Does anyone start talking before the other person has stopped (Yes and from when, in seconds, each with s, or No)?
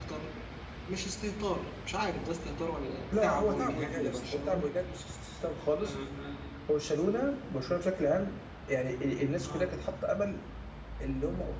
Yes, from 3.2 s